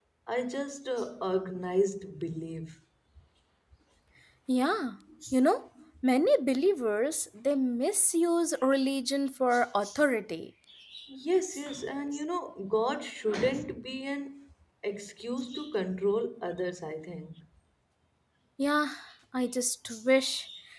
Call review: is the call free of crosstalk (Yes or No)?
Yes